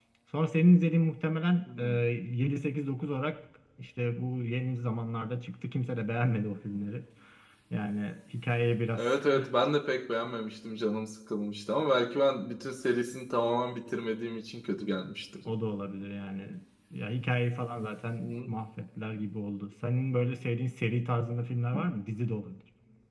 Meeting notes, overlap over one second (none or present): none